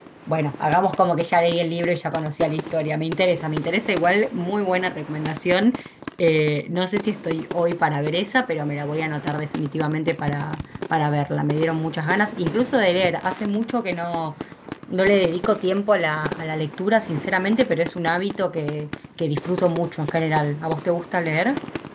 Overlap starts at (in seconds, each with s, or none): none